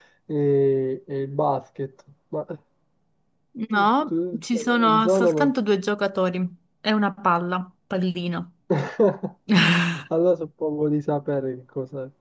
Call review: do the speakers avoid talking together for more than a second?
No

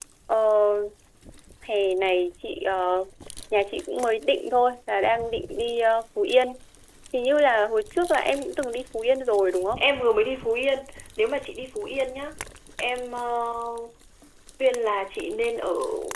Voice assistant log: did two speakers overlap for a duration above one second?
No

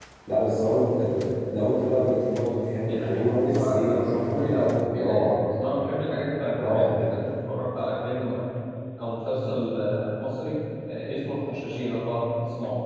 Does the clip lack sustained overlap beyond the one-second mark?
No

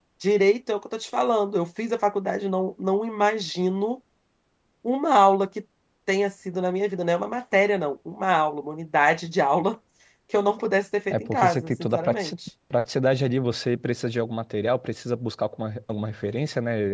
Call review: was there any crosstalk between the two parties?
Yes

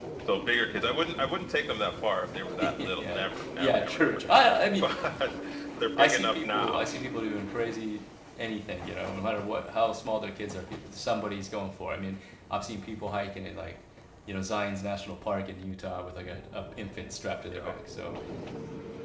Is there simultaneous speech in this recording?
Yes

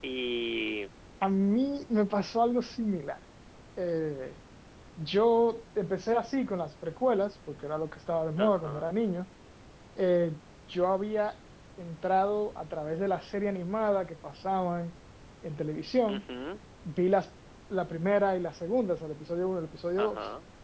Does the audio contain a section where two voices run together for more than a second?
No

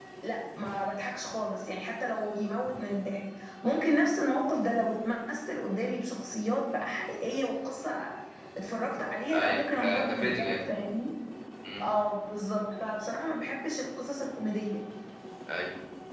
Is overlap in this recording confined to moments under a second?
No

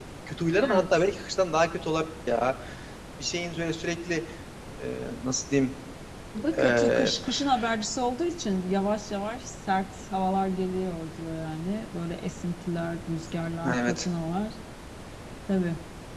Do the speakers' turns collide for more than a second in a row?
No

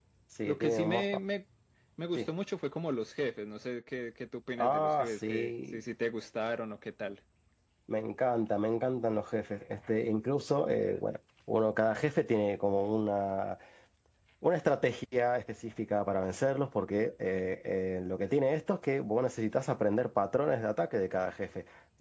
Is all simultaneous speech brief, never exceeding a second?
No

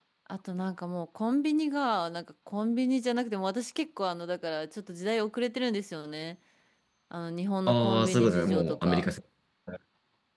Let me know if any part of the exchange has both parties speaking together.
Yes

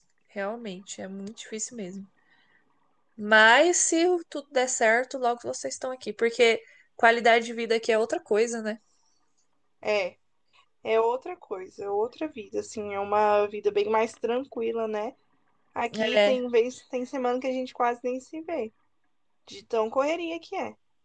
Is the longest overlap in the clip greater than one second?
No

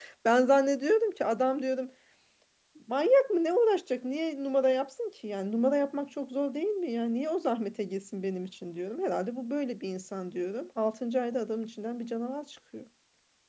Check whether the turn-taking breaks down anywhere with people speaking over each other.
No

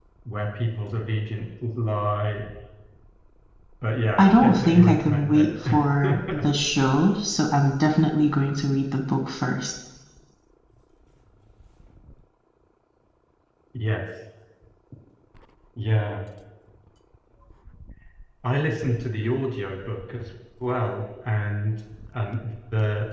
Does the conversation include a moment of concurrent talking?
Yes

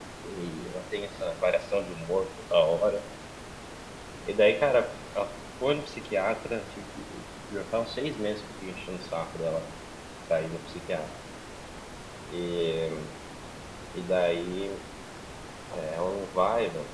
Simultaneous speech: No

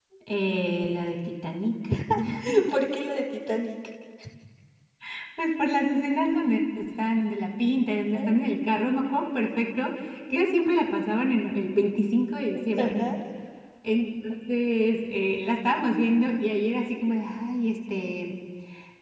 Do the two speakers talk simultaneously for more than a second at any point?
No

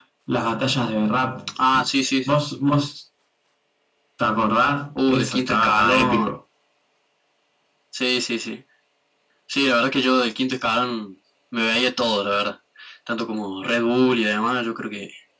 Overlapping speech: Yes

